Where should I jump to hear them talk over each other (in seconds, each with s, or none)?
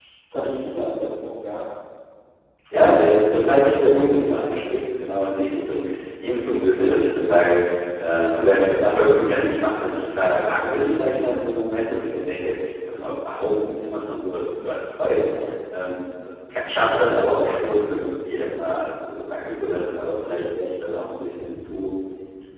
none